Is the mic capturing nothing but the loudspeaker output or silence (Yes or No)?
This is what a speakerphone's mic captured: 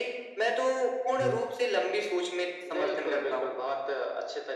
No